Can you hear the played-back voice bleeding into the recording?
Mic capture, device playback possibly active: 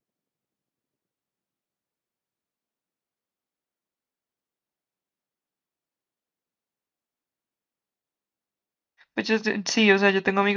No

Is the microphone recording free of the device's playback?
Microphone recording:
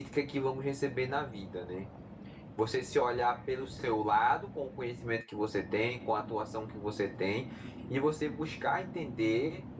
Yes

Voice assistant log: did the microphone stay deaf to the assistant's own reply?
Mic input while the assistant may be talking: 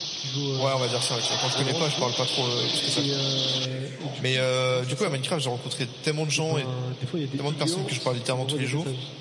No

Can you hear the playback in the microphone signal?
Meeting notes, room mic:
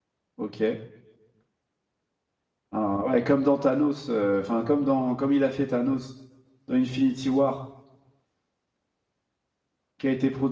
No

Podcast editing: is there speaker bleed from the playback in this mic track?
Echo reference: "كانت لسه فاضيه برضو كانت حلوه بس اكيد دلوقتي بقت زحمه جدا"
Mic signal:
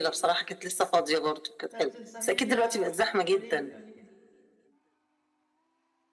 Yes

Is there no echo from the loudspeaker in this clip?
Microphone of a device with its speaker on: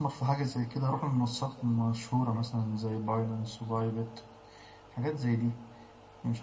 Yes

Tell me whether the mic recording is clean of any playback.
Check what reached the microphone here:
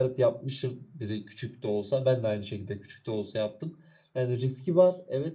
Yes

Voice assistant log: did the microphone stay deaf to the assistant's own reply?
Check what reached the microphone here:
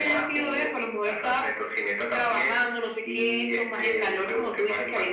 No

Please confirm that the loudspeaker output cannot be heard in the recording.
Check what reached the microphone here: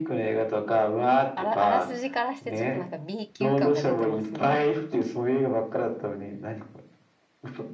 No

